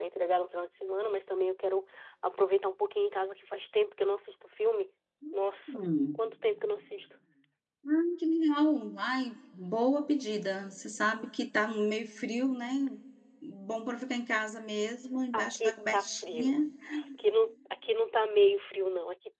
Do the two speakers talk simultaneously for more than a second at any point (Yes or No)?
Yes